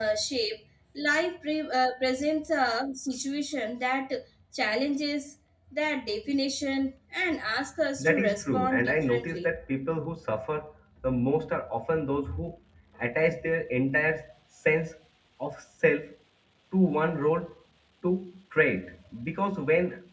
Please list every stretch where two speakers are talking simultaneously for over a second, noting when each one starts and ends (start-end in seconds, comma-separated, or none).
8.0-9.5